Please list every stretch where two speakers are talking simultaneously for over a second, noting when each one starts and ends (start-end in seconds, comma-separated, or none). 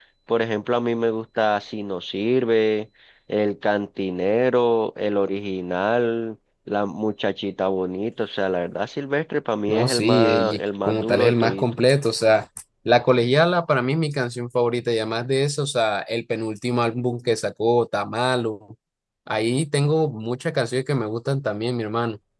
9.7-11.8